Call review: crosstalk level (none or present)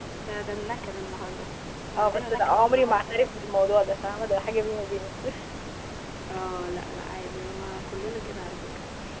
present